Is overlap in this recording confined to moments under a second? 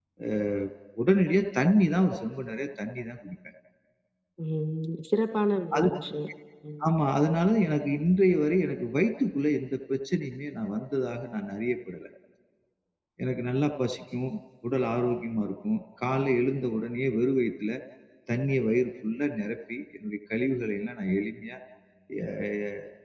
Yes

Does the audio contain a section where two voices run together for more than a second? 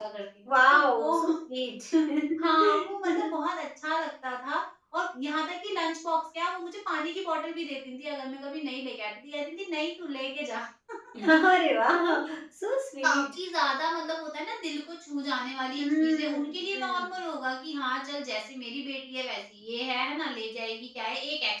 Yes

